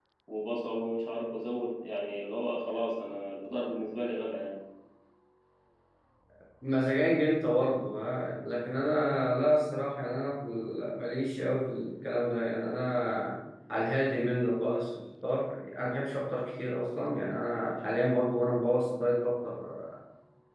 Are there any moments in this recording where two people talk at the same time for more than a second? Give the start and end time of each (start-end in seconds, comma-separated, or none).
none